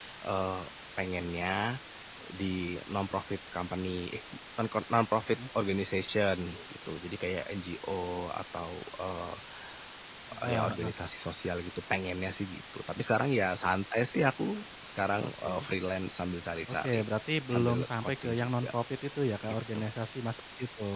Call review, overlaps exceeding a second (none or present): present